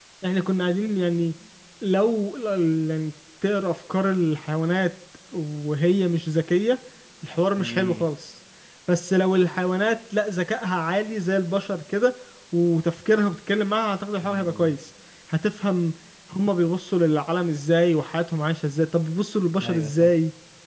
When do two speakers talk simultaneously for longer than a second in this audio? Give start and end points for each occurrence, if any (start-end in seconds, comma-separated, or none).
none